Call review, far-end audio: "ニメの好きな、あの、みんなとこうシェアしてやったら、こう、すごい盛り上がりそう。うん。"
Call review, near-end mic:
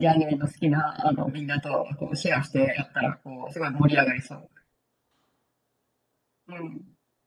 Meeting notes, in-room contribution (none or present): none